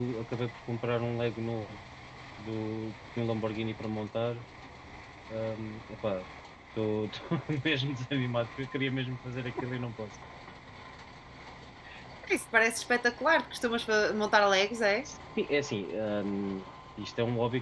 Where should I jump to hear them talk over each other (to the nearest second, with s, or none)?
none